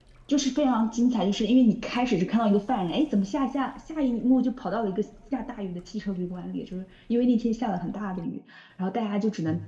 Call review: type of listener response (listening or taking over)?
listening